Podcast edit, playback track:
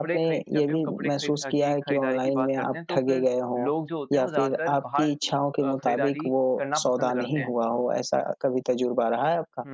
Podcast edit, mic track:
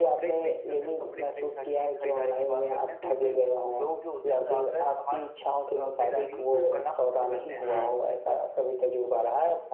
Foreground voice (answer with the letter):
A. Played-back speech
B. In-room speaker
A